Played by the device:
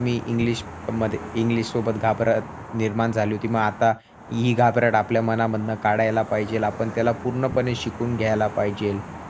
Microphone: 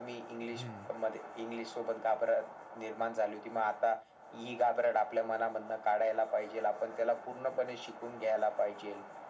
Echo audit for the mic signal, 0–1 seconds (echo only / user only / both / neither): both